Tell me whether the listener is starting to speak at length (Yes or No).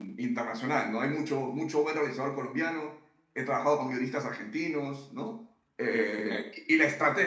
No